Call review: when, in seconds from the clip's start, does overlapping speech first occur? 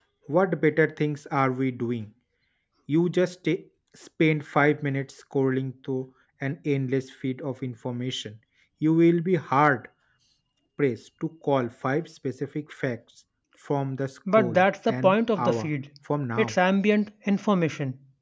14.3 s

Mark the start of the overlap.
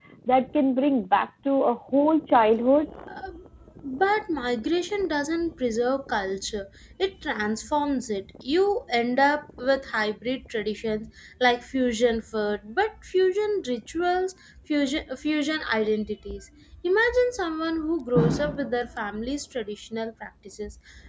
none

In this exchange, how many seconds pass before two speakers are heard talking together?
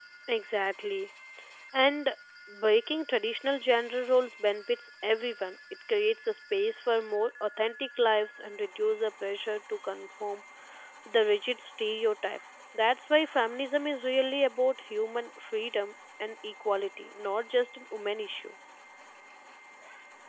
none

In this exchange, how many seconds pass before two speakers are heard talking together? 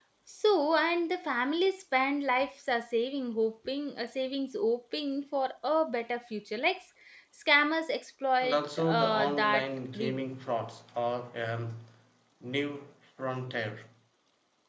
8.4 s

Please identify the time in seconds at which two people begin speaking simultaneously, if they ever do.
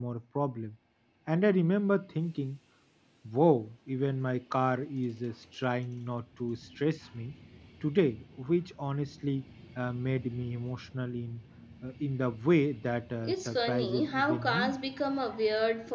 13.2 s

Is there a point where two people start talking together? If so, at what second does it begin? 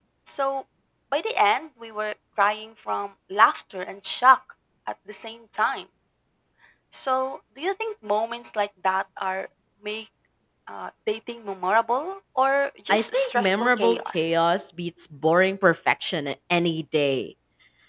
12.9 s

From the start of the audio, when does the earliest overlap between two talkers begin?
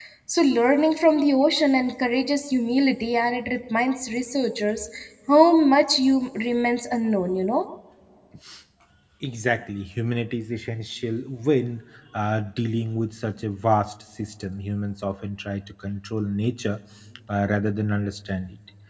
none

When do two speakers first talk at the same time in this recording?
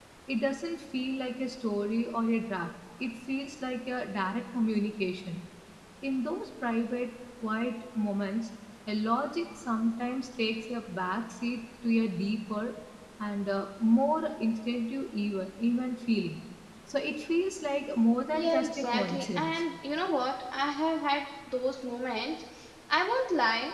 18.3 s

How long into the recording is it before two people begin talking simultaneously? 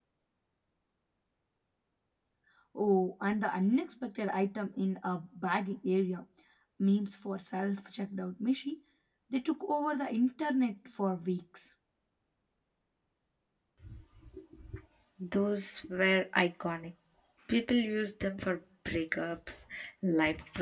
none

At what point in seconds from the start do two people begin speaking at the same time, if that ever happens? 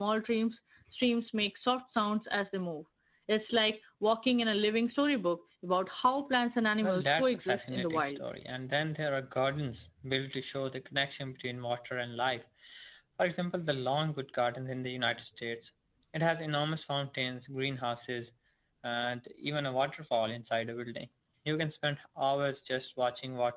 6.8 s

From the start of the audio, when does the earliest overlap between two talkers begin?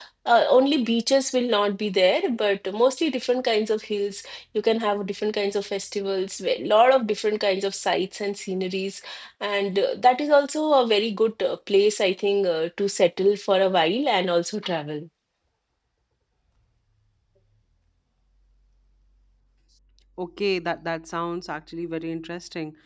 none

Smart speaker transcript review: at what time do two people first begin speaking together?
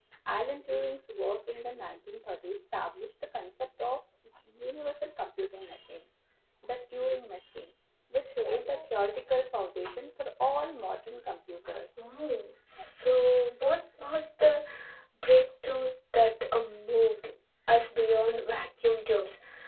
none

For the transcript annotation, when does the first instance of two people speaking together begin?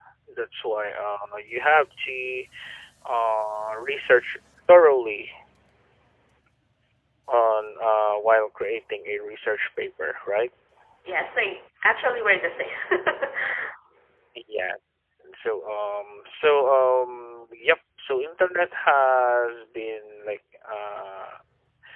none

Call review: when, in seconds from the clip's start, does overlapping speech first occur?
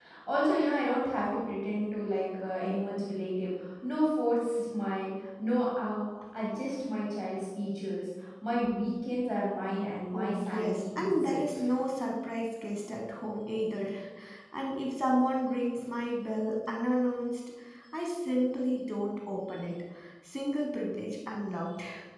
10.1 s

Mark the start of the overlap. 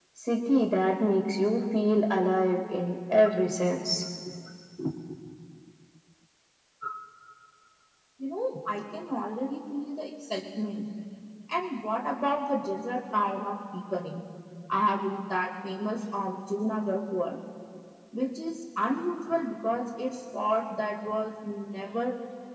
none

